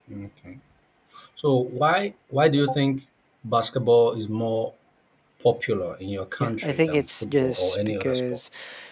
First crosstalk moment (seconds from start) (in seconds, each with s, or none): 6.4 s